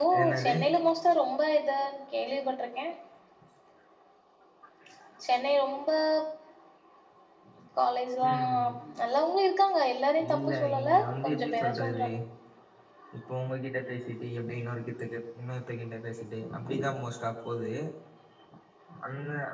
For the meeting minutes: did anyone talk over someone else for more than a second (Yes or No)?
Yes